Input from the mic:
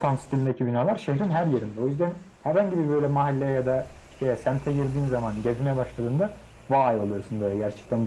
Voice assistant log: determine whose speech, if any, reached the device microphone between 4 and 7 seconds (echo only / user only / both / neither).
echo only